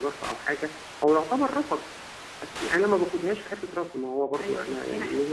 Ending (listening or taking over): taking over